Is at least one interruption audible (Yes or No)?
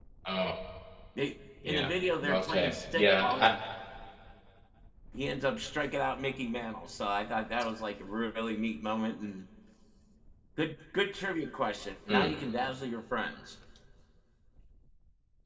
Yes